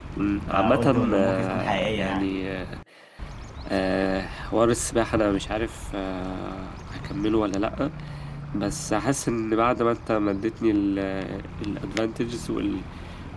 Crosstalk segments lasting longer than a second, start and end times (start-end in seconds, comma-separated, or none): 0.5-2.3